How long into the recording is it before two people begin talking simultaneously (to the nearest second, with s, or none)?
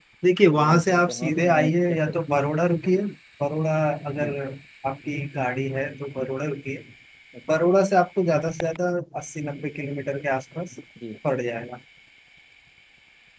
1 s